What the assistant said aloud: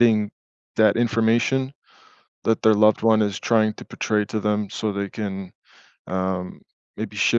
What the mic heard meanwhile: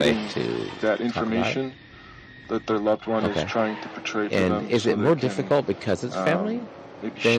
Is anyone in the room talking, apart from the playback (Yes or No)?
Yes